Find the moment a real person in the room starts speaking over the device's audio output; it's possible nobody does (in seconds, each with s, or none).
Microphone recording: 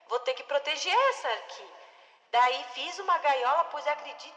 none